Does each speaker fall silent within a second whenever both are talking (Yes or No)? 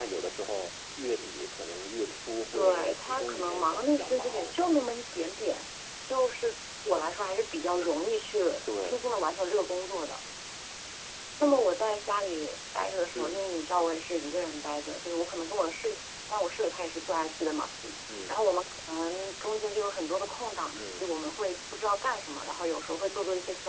No